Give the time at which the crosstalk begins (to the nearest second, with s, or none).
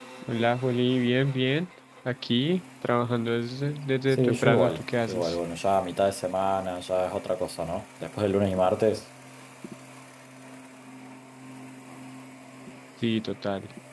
4 s